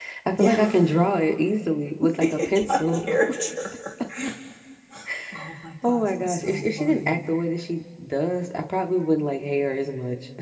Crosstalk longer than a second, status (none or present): present